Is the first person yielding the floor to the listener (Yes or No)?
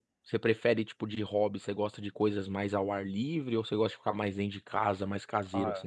Yes